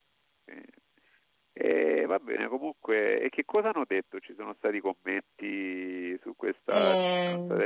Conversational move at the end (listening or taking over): taking over